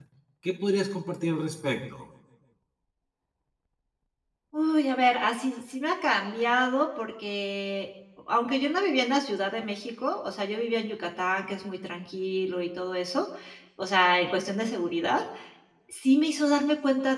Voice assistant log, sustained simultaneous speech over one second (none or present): none